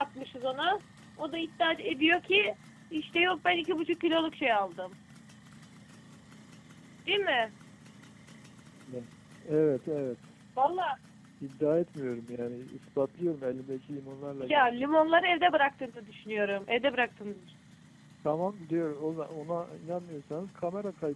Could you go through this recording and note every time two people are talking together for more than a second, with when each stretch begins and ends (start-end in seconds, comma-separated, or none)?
none